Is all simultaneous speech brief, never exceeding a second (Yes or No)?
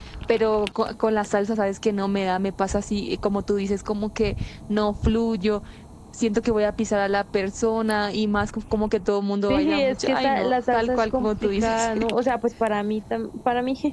No